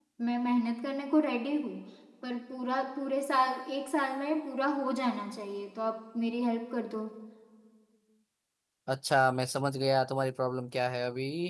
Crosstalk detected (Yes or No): No